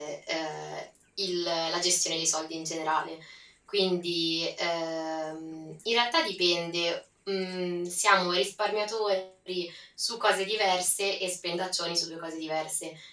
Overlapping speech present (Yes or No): No